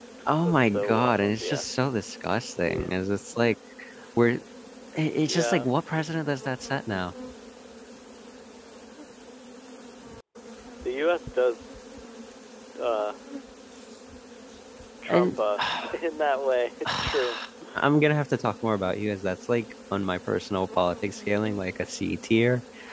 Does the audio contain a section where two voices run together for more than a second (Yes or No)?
Yes